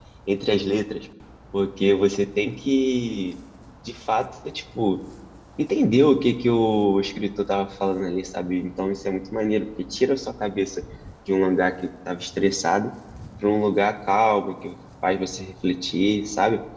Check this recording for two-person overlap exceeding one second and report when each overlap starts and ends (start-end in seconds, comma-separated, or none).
none